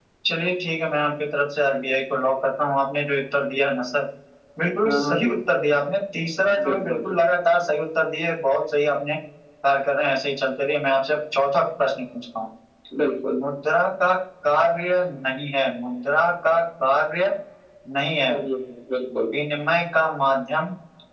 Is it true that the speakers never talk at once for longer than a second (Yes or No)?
Yes